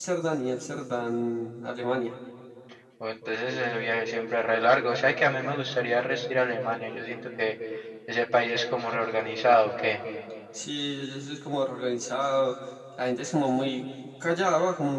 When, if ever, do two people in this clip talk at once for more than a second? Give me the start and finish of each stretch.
none

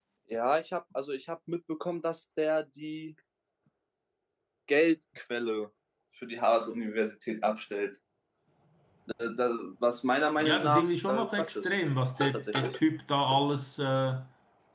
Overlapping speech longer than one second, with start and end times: 10.4-11.7

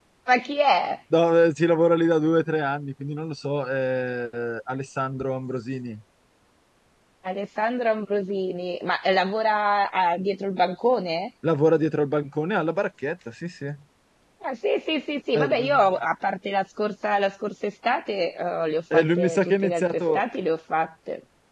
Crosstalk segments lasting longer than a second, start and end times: 18.9-20.2

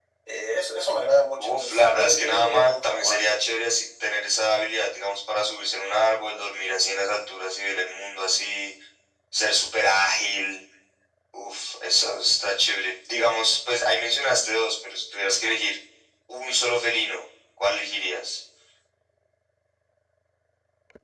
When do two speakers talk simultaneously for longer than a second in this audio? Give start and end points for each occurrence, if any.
1.4-3.2

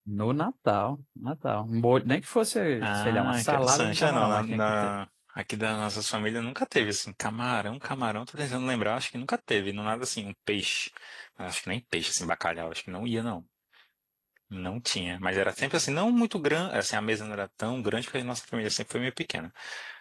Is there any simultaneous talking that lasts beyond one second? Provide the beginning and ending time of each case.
2.8-4.9

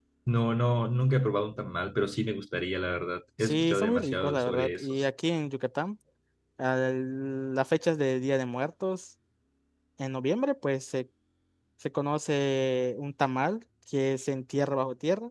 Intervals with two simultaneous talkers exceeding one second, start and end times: 3.4-5.0

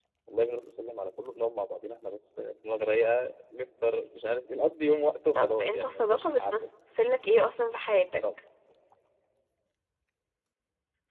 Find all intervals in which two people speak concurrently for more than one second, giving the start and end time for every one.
5.3-6.7

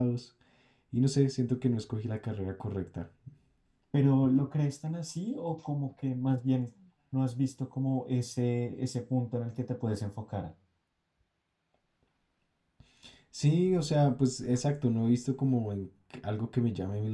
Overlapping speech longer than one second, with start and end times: none

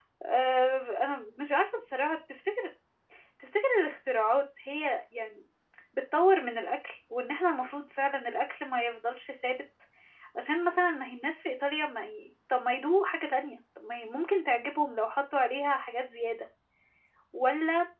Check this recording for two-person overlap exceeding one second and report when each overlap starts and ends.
none

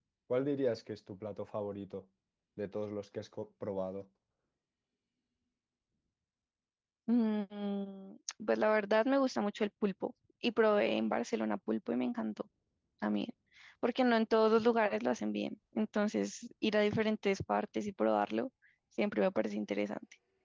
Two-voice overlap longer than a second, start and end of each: none

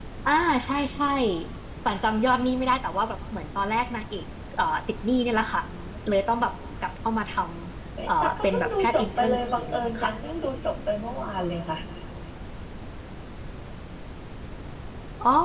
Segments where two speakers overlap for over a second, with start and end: 8.1-10.1

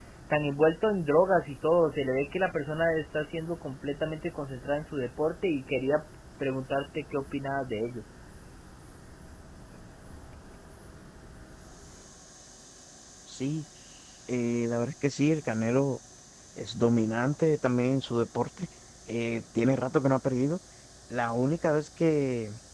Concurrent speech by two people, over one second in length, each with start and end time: none

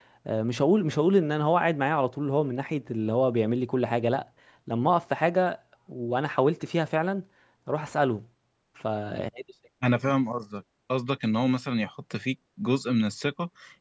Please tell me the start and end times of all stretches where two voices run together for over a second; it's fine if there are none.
none

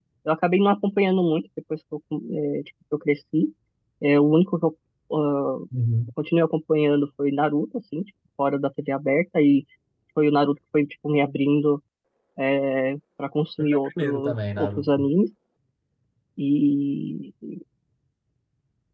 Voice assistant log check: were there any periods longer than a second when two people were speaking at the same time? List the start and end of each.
13.6-15.1

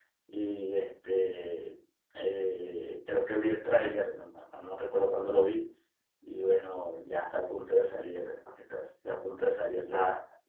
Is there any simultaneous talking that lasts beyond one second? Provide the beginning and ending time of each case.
none

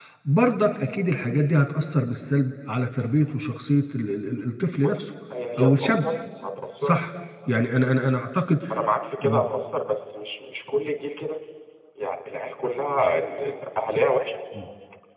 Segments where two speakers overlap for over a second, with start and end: none

